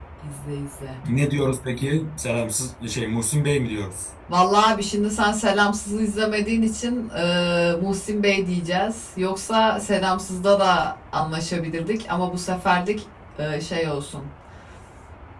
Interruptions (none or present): none